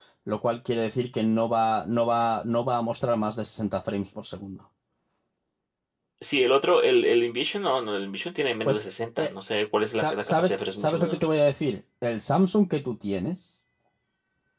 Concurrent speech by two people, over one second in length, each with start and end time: 9.9-11.3

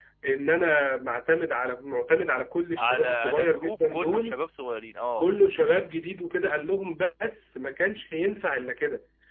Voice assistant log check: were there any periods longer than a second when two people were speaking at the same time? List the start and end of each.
2.8-4.4

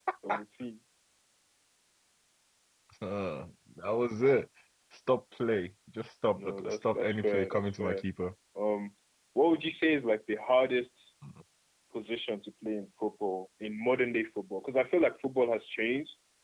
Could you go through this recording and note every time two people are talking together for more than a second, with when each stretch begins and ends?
6.4-8.0

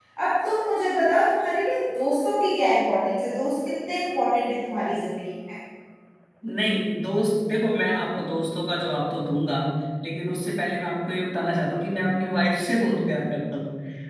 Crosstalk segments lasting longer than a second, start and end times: none

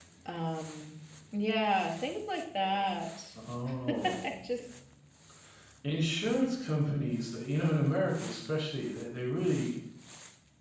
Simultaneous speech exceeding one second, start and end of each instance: none

